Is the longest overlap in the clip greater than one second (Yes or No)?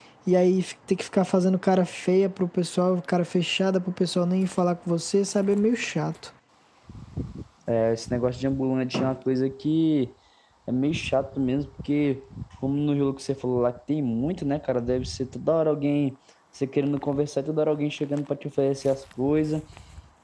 No